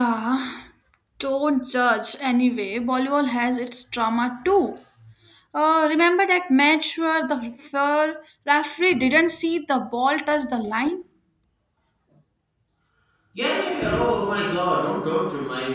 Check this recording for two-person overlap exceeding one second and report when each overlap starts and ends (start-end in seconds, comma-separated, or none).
none